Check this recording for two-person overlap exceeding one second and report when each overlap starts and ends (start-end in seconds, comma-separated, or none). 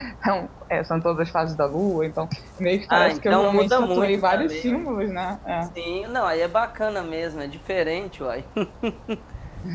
2.9-4.8